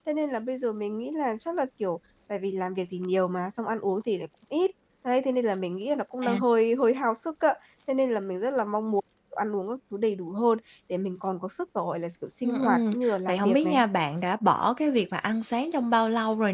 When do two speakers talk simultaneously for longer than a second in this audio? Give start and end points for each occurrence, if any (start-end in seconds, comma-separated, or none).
12.4-13.8